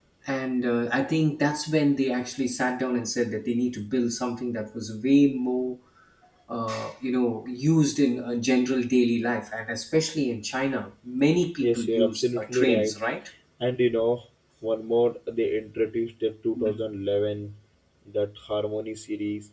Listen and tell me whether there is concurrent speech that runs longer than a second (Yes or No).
Yes